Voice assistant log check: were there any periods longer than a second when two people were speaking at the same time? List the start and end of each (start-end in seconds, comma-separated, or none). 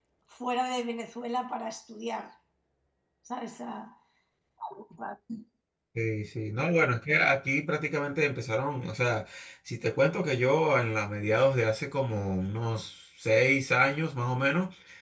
none